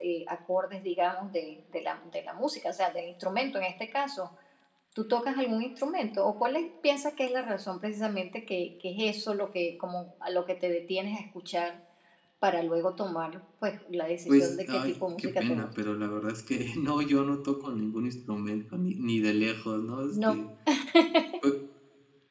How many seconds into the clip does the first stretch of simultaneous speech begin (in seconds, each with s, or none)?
14.3 s